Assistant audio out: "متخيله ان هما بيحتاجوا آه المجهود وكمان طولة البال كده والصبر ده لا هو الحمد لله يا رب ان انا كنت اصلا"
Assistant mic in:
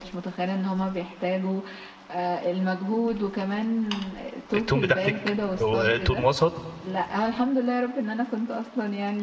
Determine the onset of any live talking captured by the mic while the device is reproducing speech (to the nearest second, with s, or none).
5 s